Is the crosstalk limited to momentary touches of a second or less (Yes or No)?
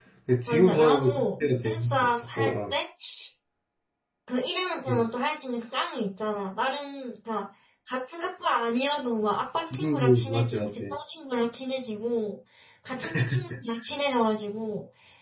No